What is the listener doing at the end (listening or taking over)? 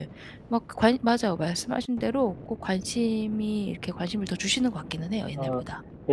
taking over